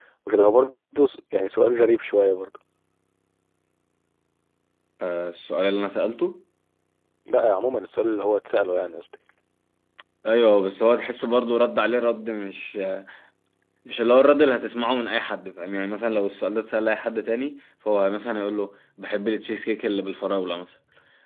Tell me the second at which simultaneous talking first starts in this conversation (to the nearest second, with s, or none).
none